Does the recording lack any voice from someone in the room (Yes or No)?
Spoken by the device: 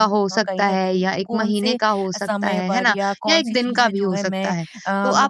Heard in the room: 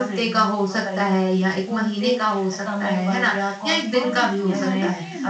No